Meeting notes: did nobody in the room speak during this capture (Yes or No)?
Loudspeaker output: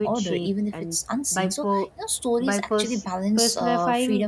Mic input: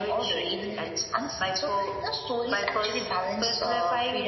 Yes